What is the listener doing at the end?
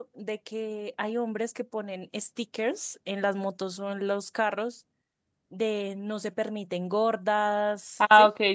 taking over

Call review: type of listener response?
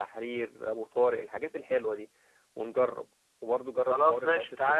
taking over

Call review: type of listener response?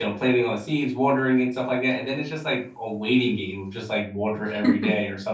listening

